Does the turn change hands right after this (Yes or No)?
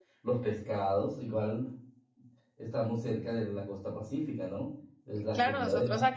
Yes